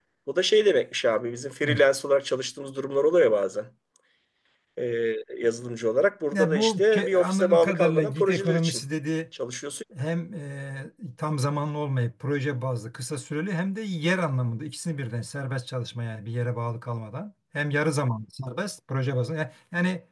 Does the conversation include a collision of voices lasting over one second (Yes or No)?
Yes